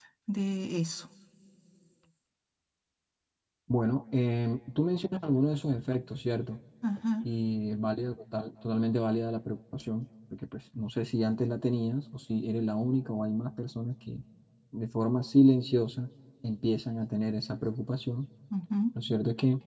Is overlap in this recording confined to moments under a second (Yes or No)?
Yes